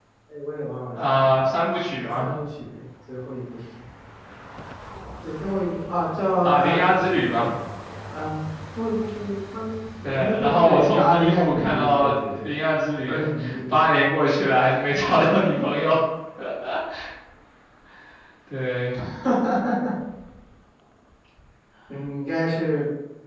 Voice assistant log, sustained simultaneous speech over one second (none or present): present